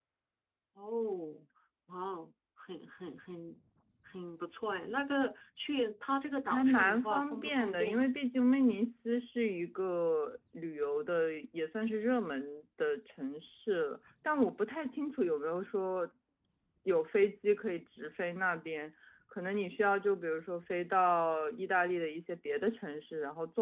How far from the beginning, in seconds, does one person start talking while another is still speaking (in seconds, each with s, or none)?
6.5 s